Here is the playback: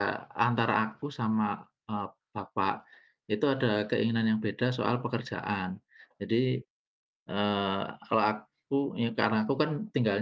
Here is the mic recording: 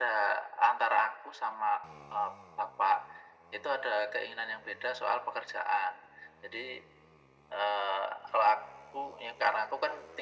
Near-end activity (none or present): none